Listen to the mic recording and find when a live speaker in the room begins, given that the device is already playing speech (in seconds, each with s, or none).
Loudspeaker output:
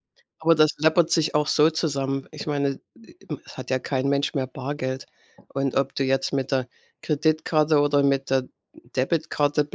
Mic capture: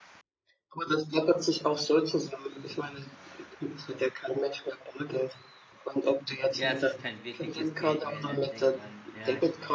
6.6 s